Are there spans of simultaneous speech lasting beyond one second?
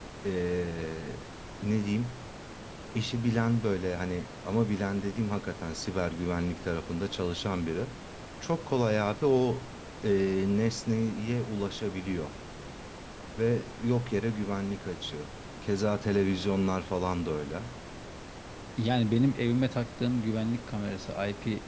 No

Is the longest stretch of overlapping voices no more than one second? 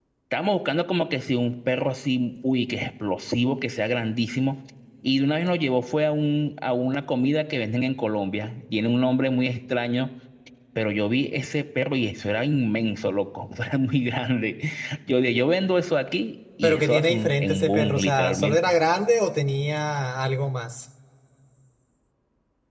No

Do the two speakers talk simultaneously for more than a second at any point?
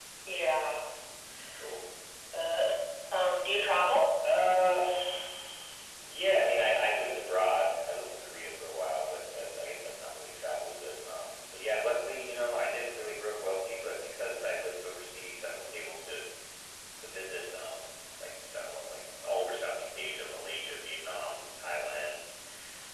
No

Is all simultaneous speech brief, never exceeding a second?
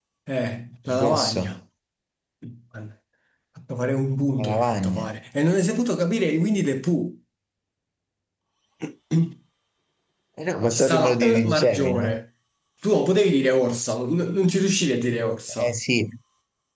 No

